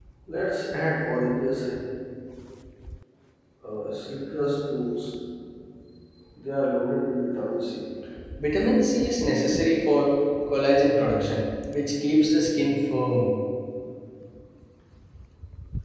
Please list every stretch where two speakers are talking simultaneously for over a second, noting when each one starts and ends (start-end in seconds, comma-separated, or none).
none